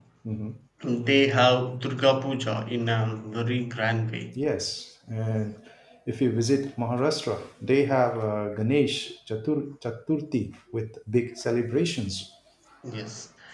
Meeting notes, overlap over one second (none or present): none